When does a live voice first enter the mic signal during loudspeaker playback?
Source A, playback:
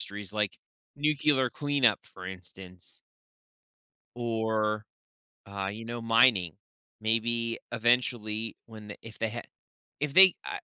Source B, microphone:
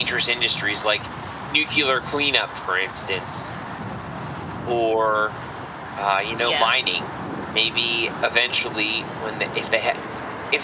6.4 s

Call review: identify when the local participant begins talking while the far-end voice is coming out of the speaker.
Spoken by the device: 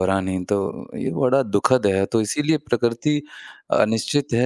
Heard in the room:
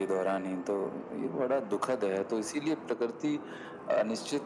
none

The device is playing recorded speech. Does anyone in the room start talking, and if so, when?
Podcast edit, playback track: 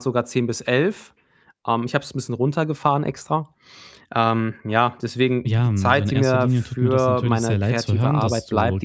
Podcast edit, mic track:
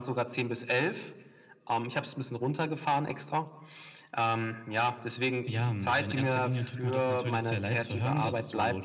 none

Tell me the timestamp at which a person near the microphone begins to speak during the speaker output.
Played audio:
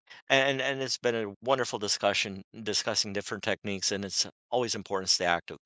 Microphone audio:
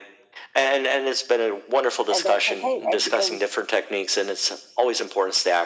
2.1 s

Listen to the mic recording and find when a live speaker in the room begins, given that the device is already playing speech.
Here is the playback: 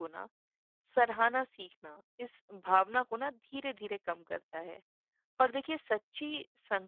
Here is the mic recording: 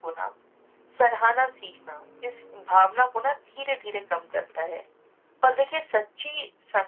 none

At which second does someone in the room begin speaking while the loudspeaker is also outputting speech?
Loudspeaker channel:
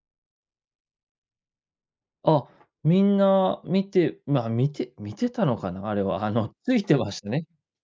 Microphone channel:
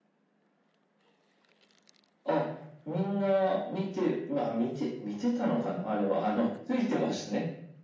none

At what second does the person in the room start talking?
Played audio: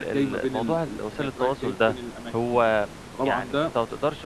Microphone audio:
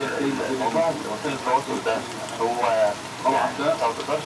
none

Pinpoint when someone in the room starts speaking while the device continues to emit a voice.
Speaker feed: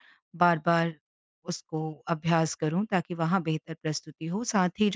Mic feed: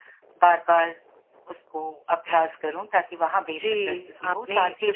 3.5 s

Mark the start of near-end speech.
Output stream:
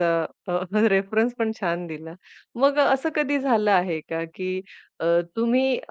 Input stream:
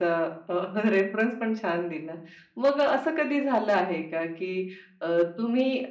none

